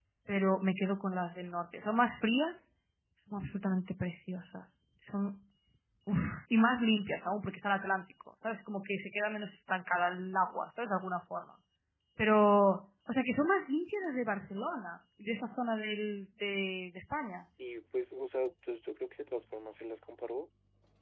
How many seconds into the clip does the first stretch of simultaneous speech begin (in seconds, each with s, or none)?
none